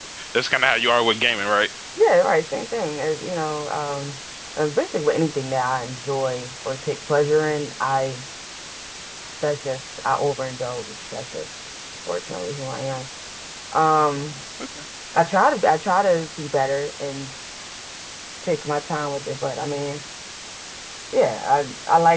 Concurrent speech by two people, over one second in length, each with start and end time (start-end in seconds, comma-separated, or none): none